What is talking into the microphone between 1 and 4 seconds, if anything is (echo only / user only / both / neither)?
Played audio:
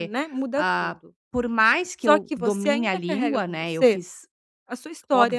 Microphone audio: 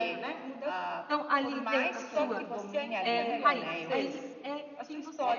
both